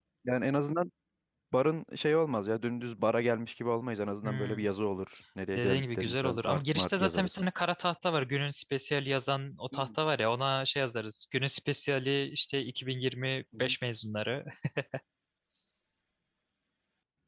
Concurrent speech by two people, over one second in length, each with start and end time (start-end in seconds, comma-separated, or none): 5.5-7.4